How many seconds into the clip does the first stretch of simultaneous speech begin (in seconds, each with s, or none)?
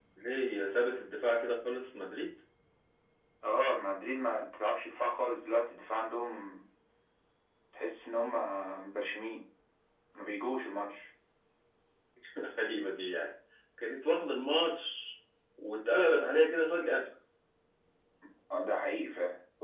none